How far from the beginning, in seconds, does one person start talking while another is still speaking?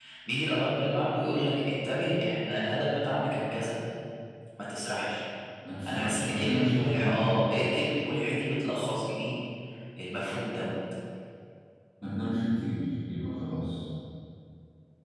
5.9 s

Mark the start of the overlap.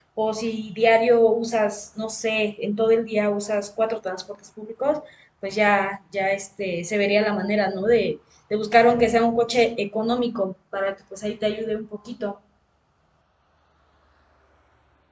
none

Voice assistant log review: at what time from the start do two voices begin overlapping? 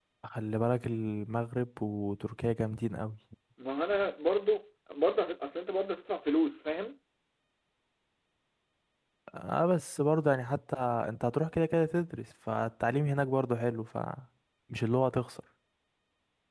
none

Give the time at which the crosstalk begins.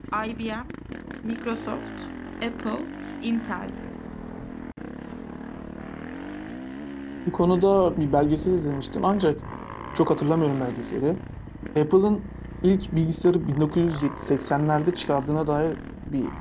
none

